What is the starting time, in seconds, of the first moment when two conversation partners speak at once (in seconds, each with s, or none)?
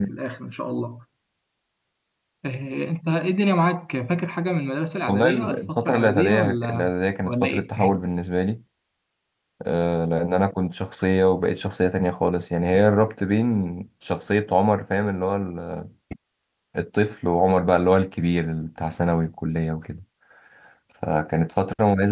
5.1 s